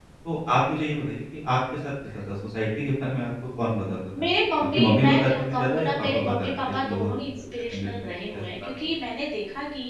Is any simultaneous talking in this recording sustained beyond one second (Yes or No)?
Yes